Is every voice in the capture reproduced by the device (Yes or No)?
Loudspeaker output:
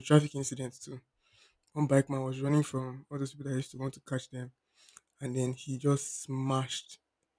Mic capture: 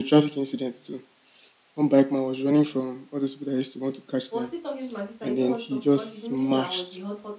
No